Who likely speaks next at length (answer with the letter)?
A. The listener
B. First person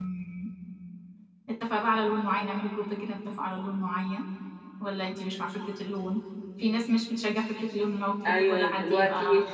A